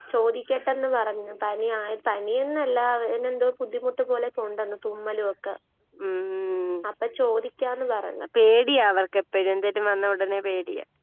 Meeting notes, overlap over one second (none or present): none